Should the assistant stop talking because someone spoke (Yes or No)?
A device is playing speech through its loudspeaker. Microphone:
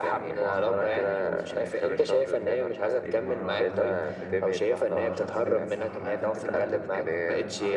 Yes